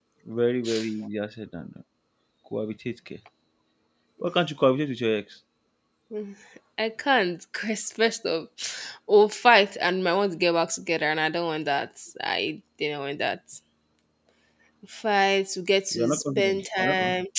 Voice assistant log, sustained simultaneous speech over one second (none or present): present